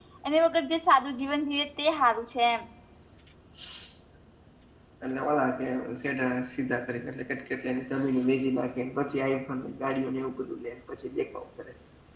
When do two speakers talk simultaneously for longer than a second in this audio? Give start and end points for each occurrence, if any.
none

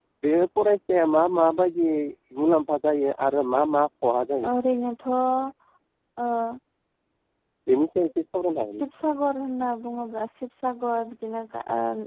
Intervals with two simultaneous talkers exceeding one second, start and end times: none

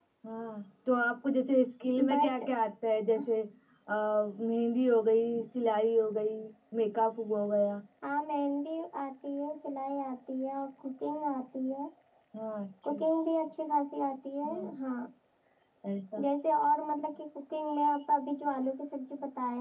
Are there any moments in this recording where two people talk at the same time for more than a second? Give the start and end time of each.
none

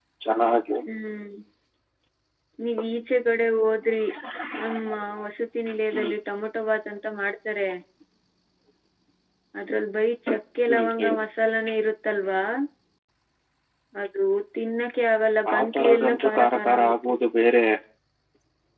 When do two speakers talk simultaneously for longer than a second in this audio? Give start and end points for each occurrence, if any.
15.5-17.1

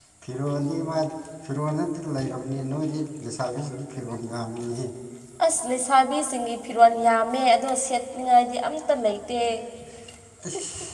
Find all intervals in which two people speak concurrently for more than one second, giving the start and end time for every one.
none

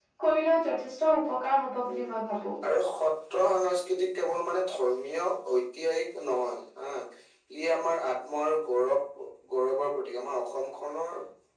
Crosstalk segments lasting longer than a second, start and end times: none

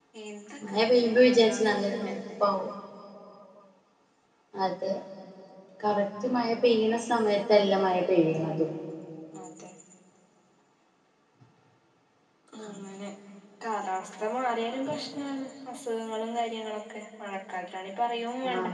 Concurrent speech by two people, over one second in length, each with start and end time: 0.7-2.5

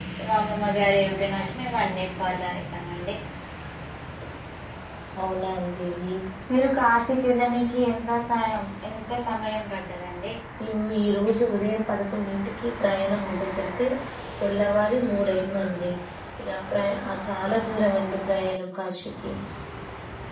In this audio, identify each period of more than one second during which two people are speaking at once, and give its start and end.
none

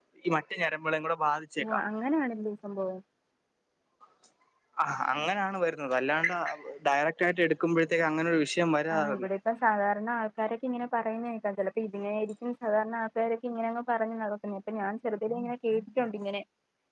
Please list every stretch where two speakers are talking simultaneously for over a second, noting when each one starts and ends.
none

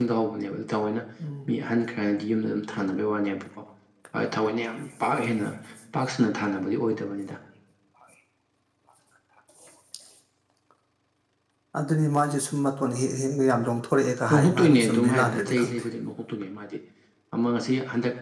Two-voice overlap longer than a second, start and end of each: 14.3-15.9

